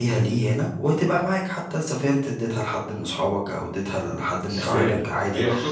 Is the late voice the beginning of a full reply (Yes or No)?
Yes